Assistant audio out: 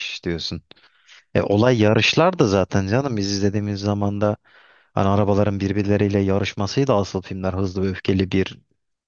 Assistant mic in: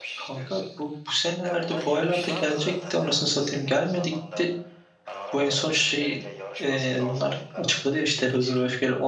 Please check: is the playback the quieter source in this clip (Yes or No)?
Yes